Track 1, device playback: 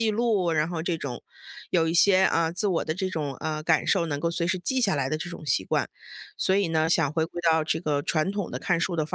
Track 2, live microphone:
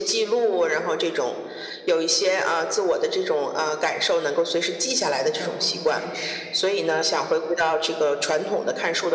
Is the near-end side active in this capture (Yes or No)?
Yes